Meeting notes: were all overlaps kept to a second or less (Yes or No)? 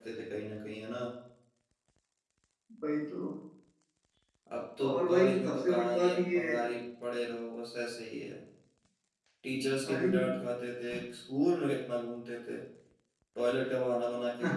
No